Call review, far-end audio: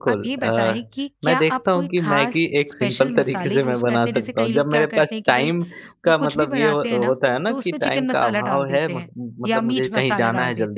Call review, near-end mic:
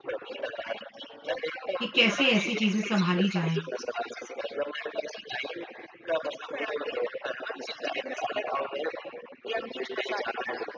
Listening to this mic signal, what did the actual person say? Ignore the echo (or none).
कि कैसे ऐसी चीज़ें सँभाली जाएँ?